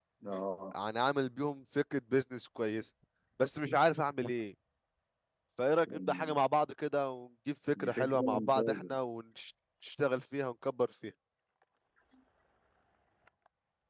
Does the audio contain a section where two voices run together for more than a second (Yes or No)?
Yes